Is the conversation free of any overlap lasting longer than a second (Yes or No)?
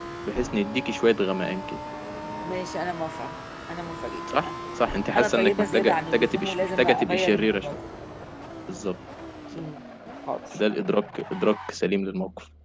No